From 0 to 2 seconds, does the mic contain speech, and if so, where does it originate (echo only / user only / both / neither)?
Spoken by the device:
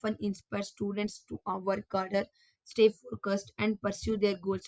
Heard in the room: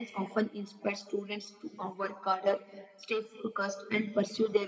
echo only